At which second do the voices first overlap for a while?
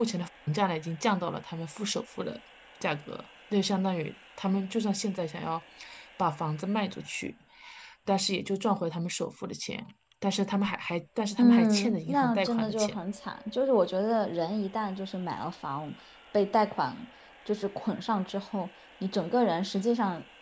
11.4 s

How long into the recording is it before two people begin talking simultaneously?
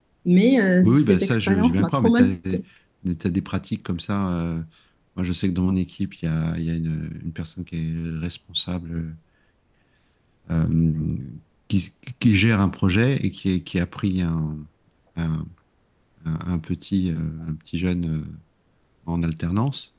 0.8 s

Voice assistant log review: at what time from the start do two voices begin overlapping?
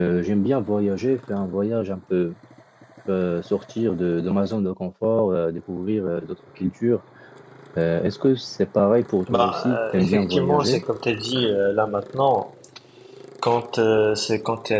9.3 s

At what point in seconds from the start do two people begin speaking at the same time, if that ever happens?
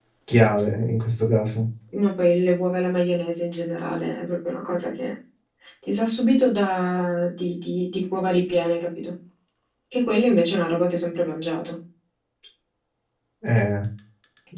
none

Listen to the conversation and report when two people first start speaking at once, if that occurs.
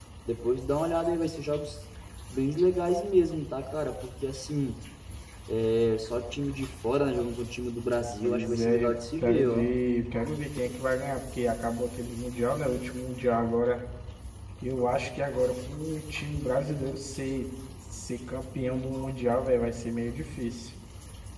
8.2 s

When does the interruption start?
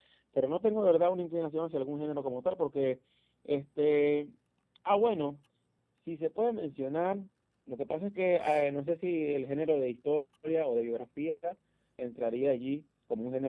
none

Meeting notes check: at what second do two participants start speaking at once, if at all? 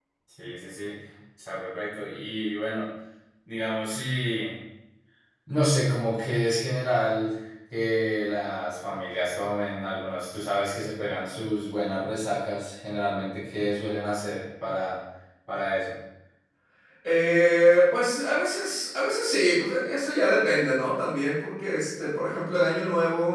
none

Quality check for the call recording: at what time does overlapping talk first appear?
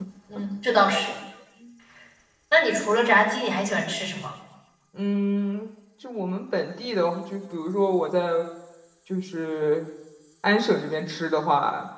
none

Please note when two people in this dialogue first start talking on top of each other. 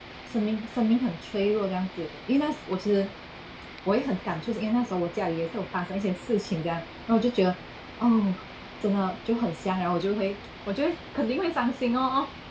none

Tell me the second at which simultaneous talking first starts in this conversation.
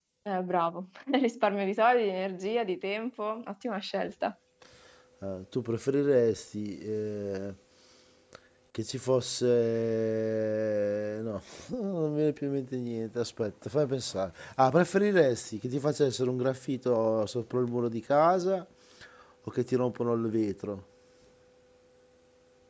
none

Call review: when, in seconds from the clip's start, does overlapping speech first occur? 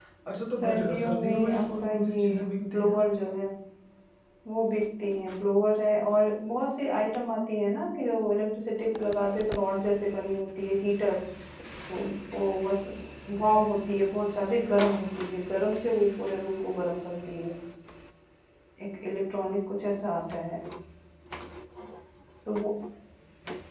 0.5 s

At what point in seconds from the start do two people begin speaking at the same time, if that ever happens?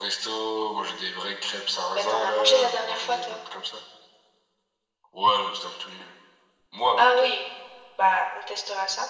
1.9 s

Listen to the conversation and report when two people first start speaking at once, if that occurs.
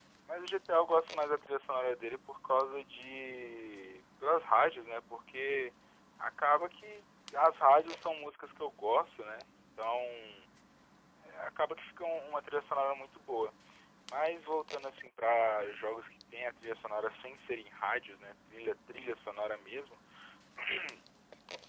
none

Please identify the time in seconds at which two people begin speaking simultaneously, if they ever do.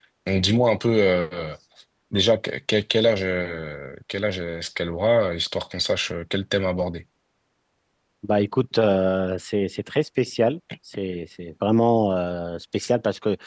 none

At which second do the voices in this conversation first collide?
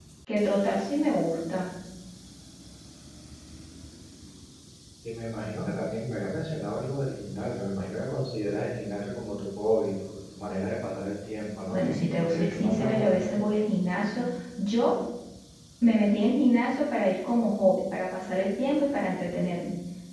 11.7 s

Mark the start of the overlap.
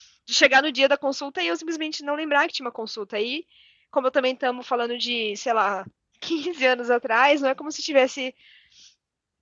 none

